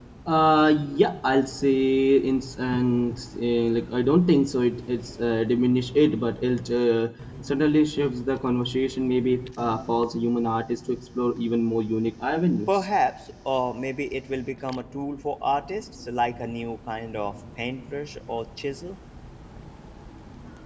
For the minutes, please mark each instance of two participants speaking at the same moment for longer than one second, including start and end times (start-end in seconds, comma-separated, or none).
none